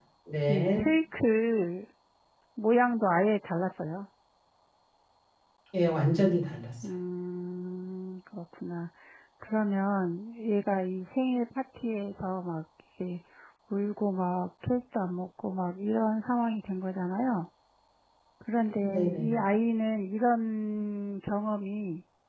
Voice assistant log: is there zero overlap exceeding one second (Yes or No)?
Yes